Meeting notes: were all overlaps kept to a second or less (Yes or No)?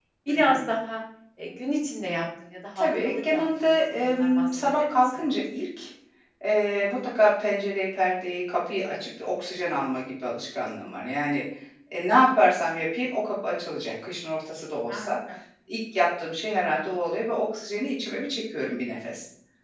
No